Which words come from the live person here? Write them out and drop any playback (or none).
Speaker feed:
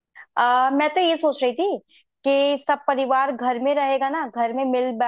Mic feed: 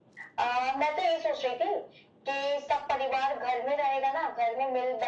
none